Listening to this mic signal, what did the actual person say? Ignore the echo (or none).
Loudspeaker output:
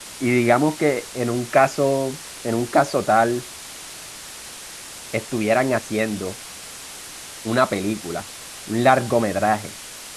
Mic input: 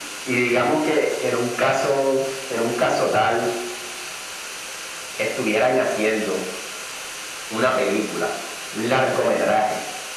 none